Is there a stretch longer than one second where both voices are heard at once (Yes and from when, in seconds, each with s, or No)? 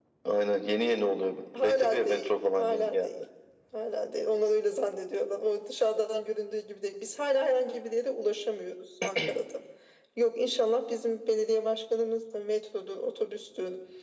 Yes, from 1.5 s